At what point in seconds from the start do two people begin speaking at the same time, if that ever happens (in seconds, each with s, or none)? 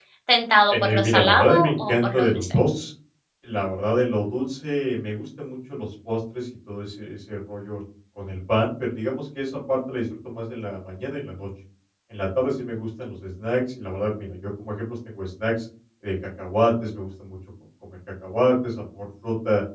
0.7 s